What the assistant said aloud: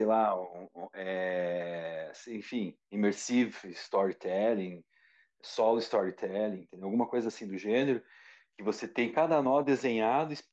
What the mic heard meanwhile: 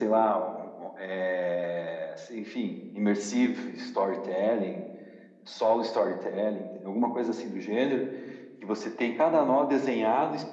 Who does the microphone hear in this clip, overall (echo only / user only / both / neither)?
echo only